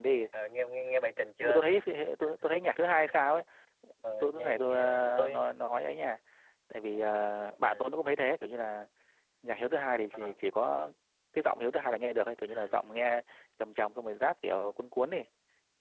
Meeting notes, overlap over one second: present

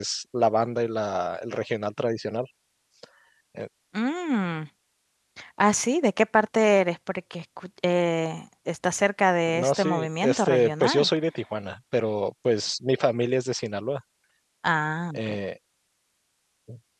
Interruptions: present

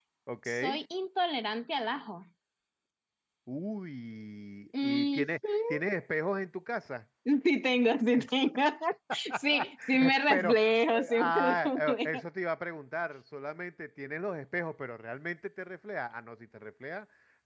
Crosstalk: present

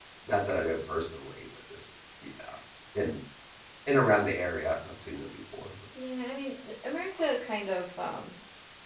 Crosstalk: none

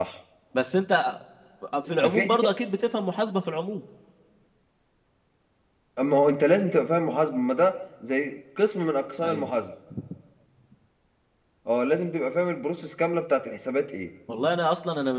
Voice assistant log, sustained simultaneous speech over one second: none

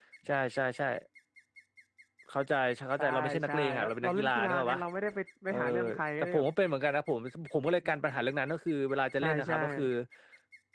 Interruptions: present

